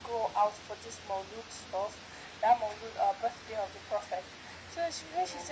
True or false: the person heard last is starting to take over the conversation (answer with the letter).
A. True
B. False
B